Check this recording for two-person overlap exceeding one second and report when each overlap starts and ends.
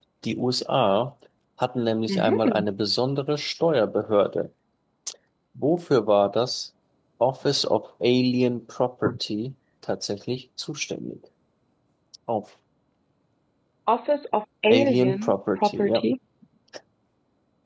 14.7-16.1

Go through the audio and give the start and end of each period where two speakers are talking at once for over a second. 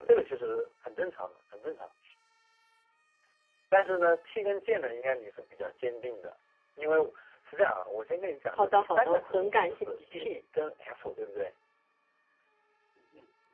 8.6-10.3

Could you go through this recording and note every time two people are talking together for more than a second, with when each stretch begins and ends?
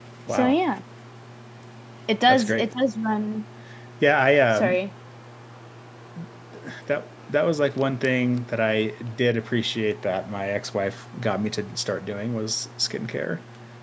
none

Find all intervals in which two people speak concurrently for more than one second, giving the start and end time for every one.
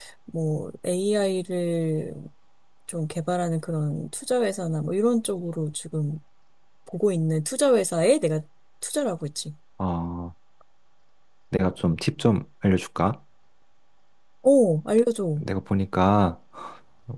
none

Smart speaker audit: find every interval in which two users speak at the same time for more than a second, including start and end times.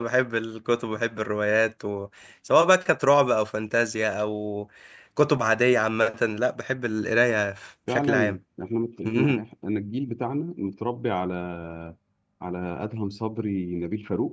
none

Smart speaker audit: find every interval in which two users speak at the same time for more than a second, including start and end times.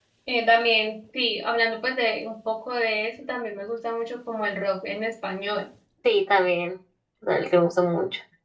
none

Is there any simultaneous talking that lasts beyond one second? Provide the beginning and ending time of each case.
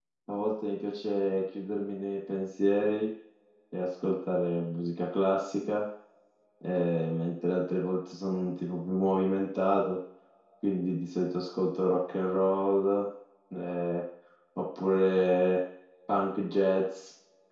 none

